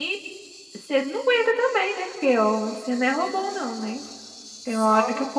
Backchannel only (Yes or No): Yes